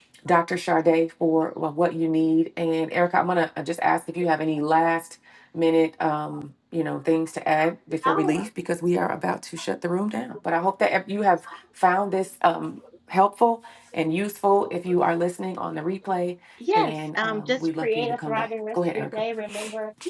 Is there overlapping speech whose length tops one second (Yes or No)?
Yes